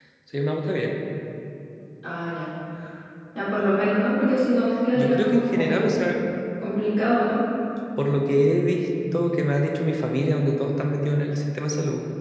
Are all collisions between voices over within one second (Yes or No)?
No